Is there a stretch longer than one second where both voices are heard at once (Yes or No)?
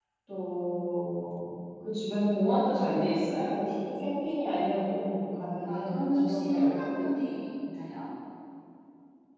Yes